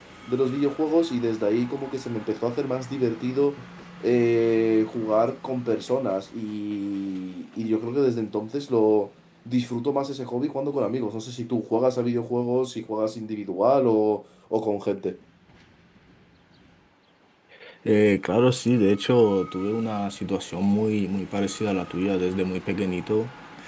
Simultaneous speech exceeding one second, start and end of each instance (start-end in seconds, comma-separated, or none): none